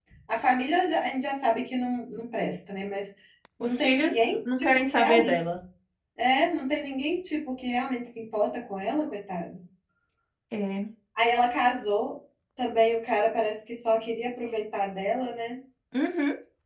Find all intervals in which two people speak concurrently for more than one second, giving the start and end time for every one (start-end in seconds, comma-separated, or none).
3.6-5.4